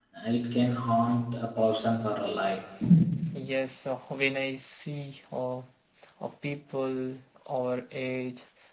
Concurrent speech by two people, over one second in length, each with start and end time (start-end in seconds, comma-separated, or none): none